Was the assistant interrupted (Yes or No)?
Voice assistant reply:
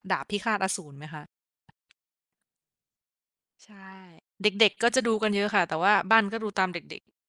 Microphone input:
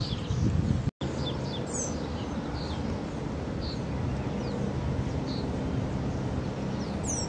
No